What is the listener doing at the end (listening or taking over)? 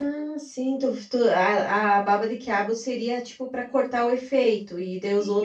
taking over